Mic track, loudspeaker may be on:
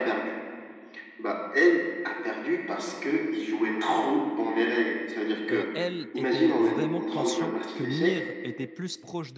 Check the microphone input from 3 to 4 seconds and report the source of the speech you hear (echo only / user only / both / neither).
echo only